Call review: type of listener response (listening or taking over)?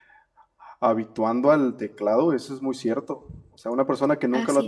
listening